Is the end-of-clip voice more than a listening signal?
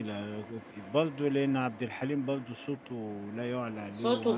Yes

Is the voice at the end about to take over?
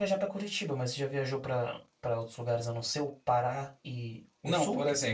Yes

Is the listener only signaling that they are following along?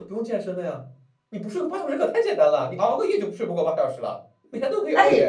No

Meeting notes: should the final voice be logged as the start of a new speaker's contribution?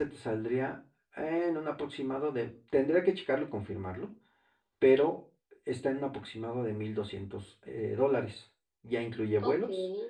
No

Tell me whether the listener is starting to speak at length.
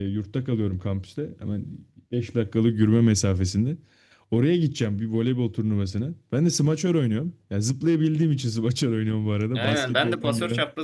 Yes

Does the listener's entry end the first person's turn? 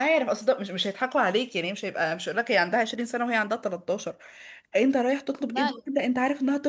No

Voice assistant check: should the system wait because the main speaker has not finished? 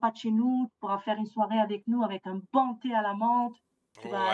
No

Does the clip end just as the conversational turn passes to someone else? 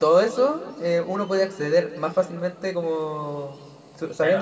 Yes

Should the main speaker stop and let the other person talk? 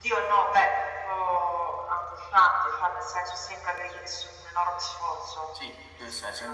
Yes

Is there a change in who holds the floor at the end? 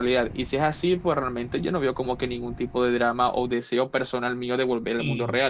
Yes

